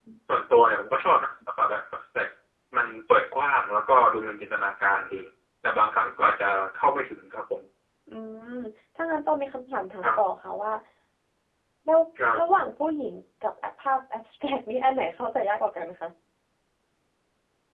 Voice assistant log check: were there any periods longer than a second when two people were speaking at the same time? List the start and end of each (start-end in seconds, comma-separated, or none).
none